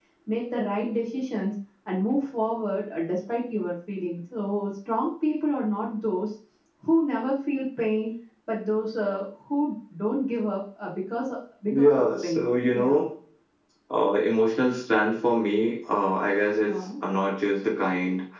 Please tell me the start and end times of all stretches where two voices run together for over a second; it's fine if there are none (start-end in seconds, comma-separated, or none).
11.7-13.0